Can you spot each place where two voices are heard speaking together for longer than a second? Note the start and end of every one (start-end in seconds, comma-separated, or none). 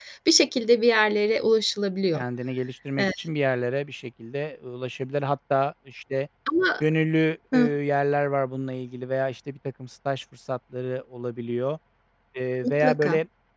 none